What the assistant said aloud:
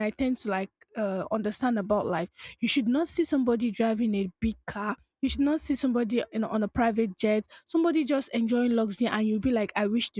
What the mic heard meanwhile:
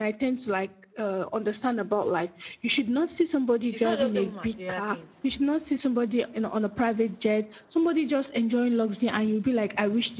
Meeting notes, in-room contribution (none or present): present